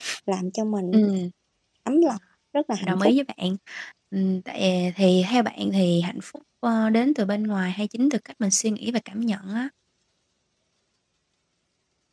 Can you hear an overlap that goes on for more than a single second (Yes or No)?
No